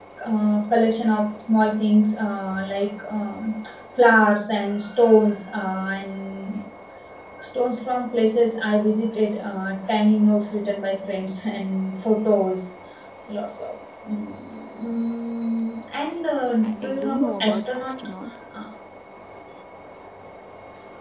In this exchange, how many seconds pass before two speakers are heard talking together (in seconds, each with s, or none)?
16.6 s